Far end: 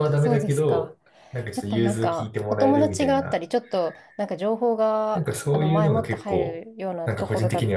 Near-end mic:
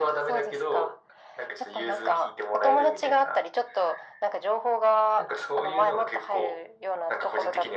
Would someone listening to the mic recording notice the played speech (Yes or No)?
Yes